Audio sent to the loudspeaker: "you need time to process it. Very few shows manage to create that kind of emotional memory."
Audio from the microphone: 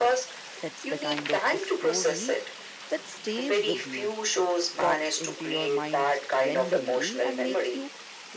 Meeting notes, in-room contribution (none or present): present